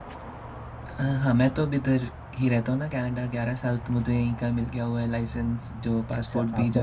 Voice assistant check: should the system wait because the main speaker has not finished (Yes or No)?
No